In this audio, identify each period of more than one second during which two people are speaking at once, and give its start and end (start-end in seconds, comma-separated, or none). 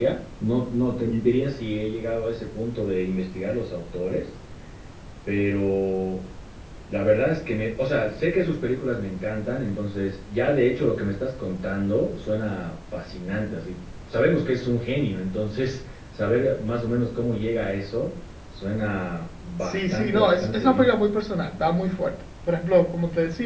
19.6-20.9